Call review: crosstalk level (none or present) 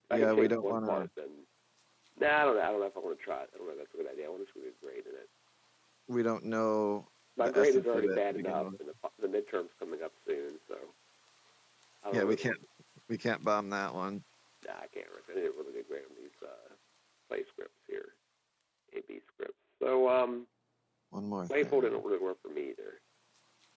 present